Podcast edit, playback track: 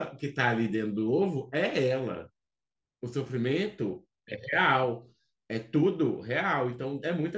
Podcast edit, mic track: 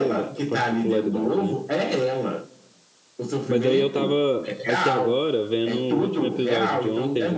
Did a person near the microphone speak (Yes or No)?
Yes